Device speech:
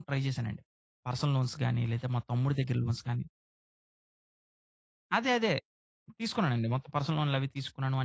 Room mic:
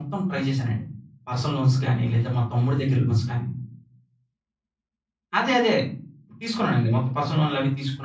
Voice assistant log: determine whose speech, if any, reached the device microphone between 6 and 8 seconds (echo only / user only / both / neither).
echo only